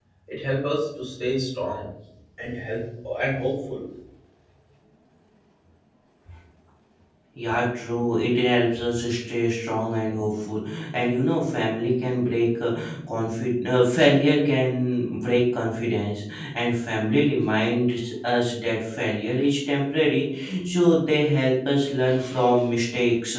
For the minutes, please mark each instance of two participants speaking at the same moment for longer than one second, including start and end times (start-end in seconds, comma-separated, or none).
none